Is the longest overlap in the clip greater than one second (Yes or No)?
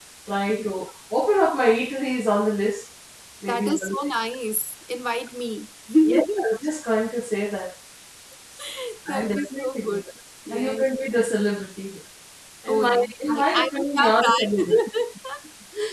Yes